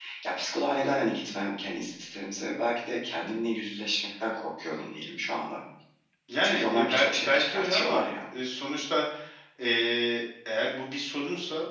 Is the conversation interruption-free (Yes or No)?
No